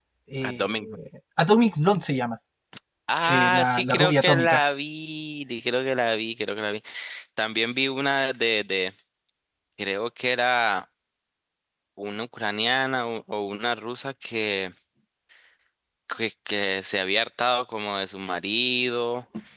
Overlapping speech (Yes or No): Yes